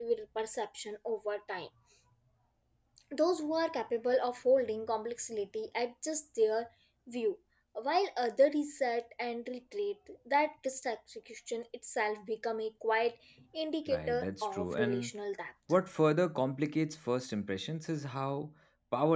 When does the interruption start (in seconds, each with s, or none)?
13.9 s